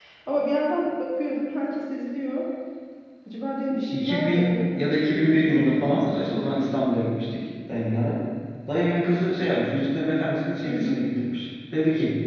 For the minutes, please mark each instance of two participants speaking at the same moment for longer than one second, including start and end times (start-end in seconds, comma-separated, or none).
3.9-6.7